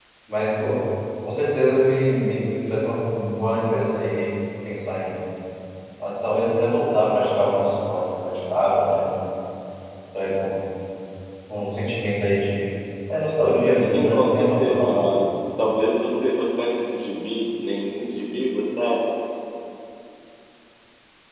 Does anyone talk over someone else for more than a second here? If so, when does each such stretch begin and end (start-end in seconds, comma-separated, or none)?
13.7-15.2